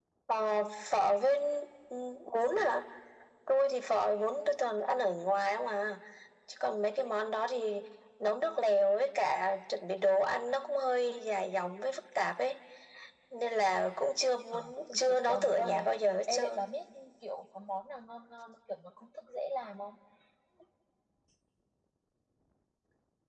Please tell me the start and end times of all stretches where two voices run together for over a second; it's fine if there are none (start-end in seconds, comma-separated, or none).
14.5-15.9